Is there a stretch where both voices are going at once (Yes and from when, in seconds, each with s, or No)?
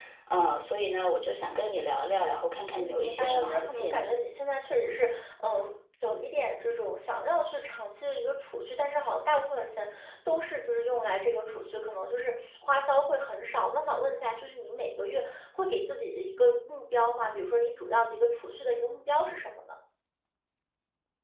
Yes, from 2.8 s